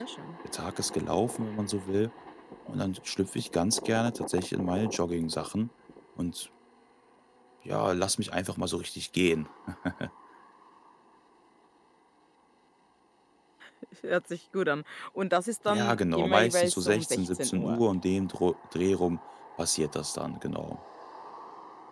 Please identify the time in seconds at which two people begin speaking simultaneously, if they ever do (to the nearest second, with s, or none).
16 s